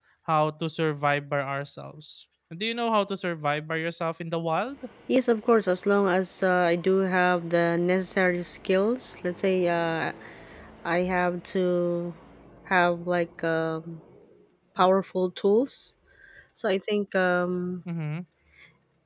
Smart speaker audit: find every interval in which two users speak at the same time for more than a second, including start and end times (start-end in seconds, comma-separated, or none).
none